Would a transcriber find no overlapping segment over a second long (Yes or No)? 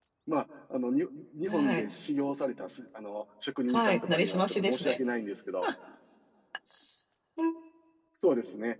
No